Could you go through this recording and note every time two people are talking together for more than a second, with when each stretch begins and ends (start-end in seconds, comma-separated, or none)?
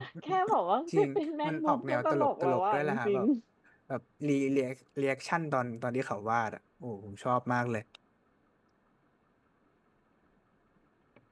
1.5-3.2